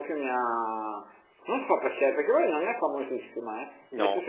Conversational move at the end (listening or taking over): listening